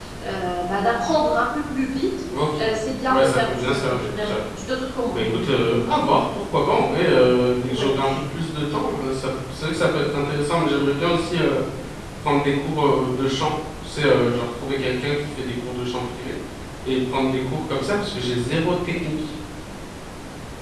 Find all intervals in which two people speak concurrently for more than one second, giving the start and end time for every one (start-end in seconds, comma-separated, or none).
3.1-4.4